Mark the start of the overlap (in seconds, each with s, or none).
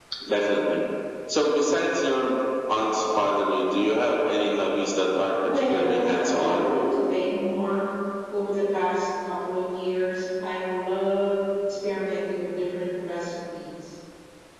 5.4 s